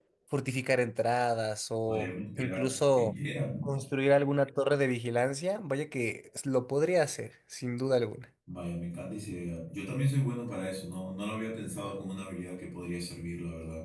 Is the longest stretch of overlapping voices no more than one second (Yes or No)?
No